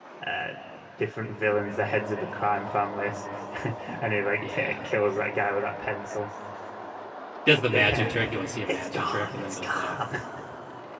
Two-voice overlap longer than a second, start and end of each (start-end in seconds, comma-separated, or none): 7.7-10.0